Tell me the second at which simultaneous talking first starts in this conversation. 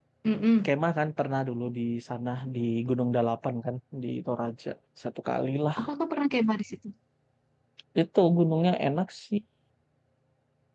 none

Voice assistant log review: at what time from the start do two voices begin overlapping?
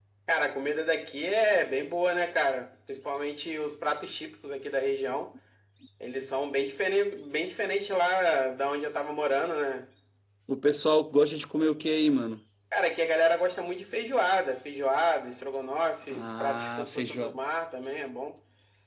16 s

